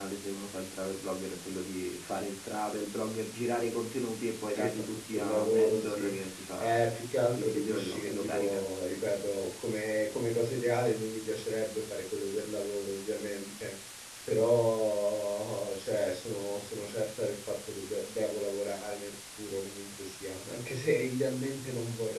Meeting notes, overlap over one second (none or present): present